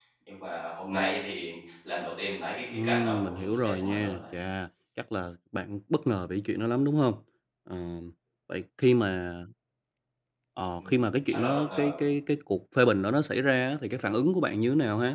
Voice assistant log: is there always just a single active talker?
No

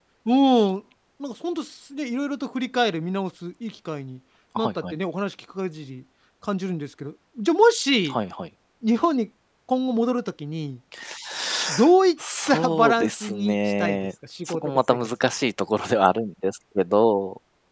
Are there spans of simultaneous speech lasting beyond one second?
Yes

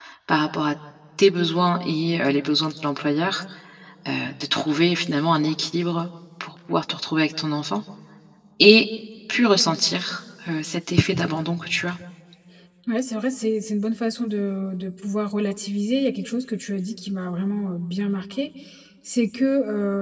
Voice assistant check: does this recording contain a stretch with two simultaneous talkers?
No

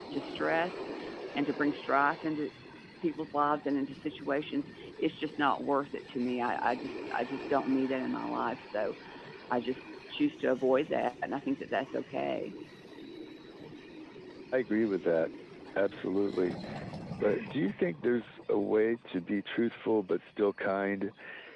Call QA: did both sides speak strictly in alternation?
Yes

